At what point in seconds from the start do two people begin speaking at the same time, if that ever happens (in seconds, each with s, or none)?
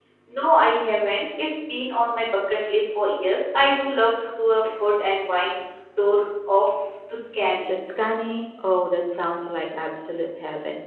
none